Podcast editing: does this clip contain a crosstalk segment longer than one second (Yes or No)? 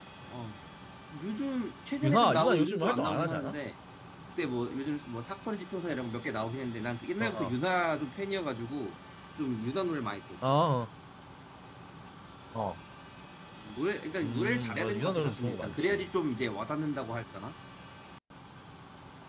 Yes